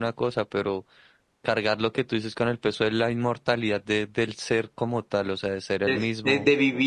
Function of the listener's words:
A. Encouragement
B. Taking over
B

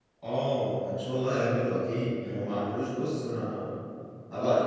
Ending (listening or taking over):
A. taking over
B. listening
A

